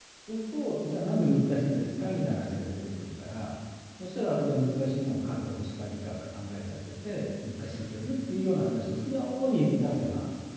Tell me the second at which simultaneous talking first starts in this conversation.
none

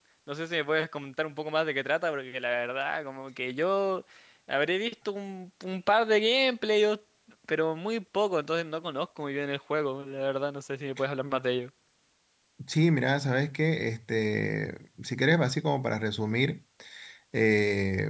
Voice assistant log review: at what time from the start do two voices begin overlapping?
none

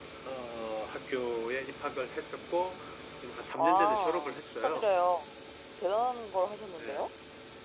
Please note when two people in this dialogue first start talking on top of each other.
3.6 s

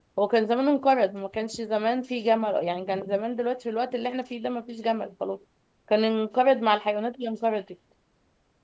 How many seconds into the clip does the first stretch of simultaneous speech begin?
none

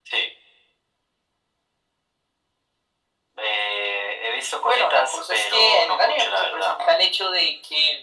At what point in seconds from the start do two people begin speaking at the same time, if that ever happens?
4.6 s

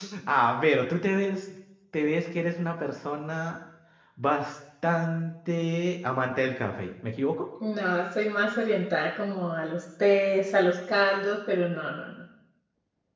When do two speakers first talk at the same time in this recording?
none

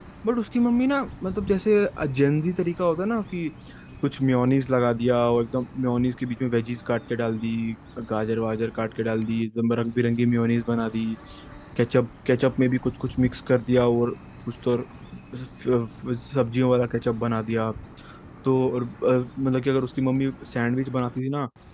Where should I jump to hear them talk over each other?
none

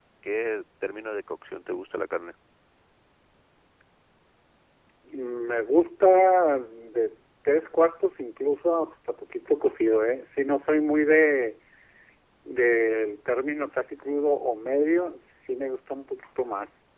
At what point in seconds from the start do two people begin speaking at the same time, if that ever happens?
none

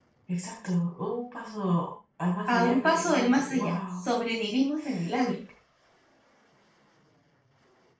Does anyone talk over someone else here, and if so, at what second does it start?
2.5 s

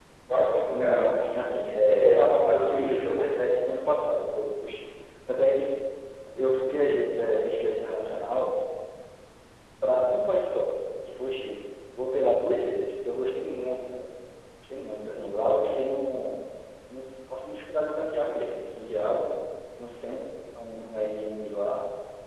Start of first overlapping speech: 0.7 s

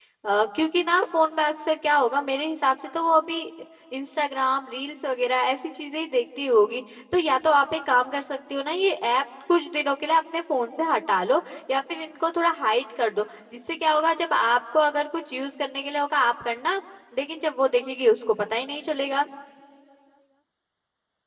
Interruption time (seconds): none

